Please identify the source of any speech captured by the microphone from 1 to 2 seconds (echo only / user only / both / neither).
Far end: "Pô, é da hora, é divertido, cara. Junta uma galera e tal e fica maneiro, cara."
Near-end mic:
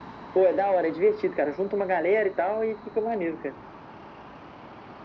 echo only